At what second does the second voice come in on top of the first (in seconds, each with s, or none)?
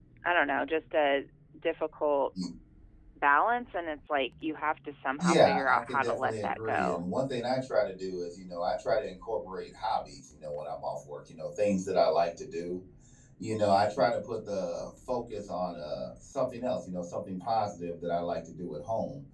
5.2 s